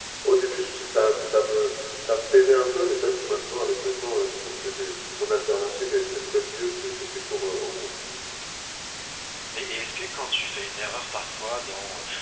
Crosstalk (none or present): none